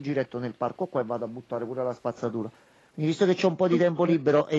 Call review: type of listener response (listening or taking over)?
listening